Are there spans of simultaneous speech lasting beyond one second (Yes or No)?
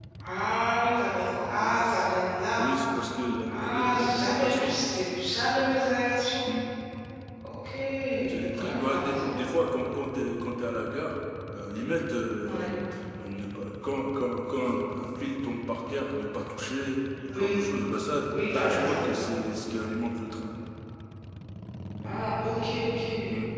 Yes